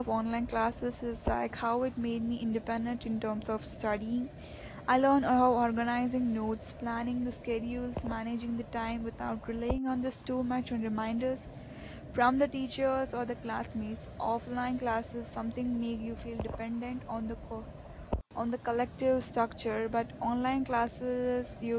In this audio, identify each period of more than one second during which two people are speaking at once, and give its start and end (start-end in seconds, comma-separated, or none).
none